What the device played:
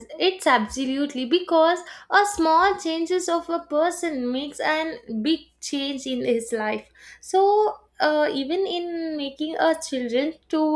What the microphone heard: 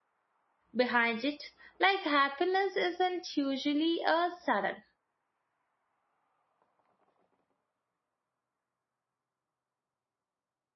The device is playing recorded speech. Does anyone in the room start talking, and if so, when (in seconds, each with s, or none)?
0.8 s